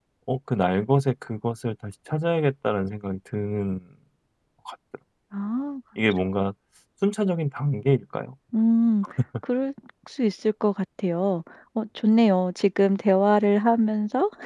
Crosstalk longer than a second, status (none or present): none